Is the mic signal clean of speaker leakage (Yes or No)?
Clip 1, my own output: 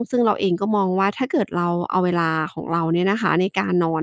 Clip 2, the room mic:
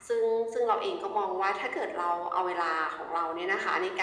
No